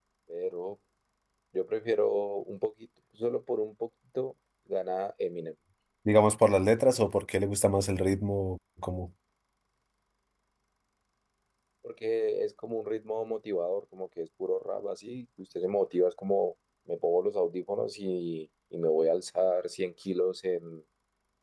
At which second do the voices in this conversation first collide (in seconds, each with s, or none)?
none